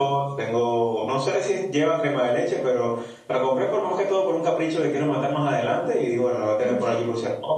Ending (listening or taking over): listening